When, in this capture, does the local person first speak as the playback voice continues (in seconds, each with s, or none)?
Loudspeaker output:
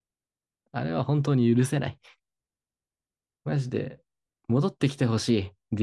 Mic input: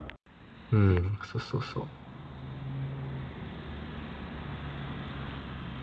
0.7 s